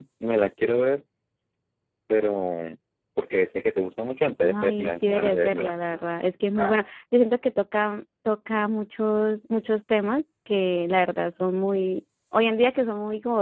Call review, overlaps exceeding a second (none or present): present